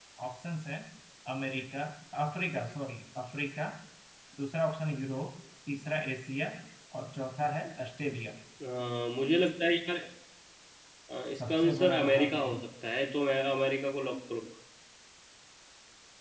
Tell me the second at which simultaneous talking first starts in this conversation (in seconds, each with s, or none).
11.4 s